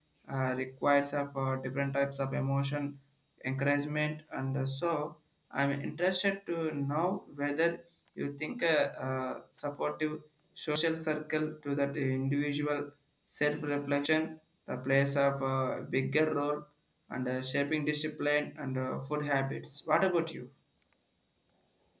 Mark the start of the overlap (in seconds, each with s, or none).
none